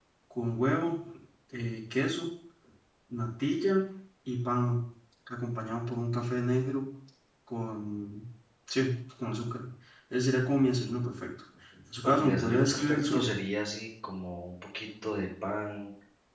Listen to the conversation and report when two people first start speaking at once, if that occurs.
12.0 s

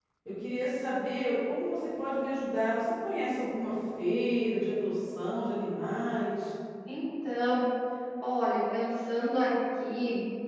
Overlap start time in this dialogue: none

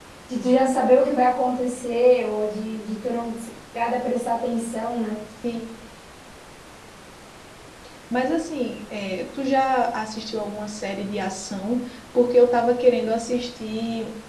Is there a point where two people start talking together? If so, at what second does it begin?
none

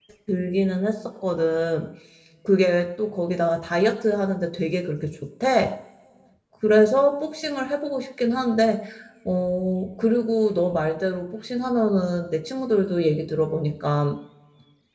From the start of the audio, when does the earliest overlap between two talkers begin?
none

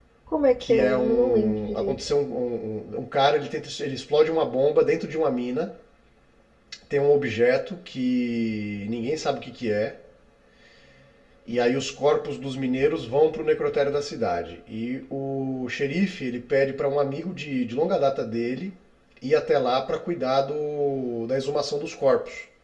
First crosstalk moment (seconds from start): 0.6 s

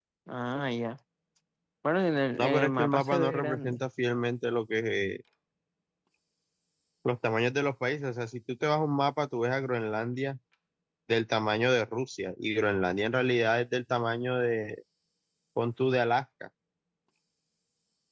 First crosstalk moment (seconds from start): 2.4 s

